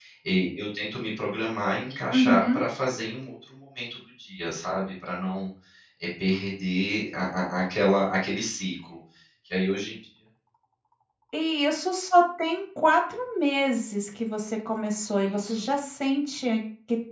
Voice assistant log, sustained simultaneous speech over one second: none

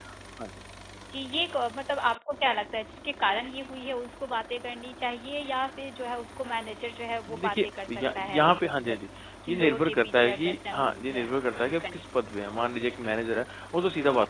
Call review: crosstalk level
present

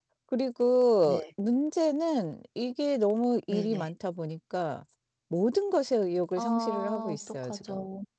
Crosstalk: present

